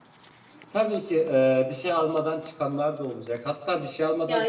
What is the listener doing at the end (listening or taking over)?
listening